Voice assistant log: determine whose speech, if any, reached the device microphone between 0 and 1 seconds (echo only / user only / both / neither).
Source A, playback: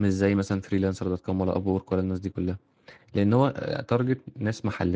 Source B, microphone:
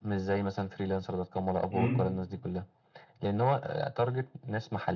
echo only